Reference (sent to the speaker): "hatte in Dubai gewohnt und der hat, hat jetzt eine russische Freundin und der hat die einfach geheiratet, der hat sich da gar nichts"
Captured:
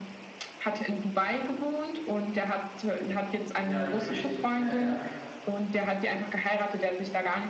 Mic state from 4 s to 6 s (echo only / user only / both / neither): both